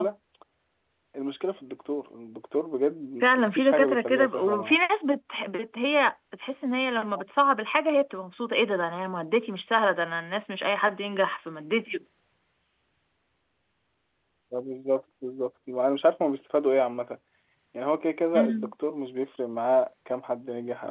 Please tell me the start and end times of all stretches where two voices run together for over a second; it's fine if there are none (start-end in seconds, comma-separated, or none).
3.2-4.8